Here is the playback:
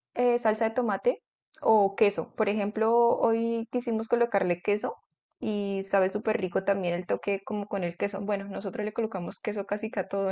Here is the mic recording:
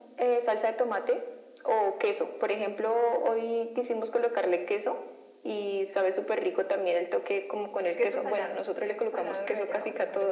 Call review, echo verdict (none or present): present